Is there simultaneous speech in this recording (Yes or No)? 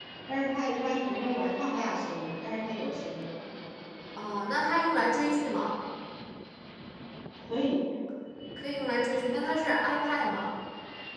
No